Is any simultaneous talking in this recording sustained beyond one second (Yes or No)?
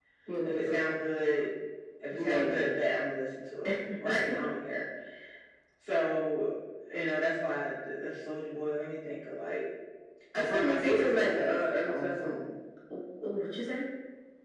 Yes